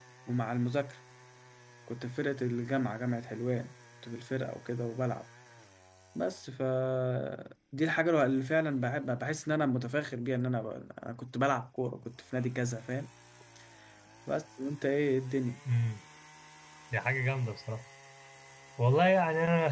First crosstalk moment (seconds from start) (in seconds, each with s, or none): none